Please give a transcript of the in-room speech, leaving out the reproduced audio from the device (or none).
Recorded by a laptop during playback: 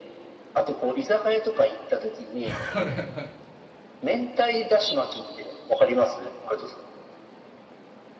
はい。